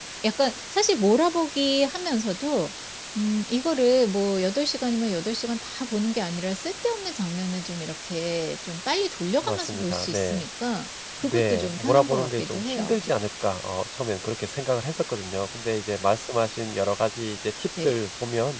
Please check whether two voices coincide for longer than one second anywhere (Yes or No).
Yes